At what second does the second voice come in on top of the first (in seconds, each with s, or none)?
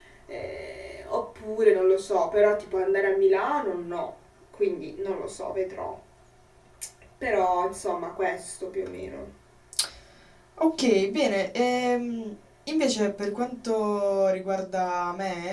none